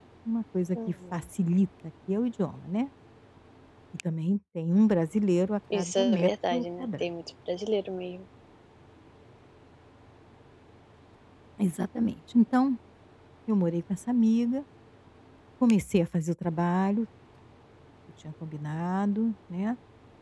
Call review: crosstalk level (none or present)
present